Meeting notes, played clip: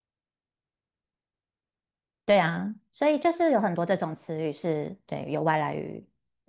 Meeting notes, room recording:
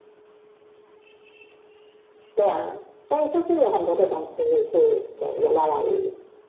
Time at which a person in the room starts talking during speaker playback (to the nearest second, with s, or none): none